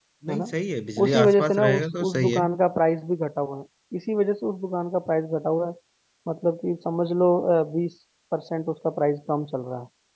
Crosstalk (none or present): present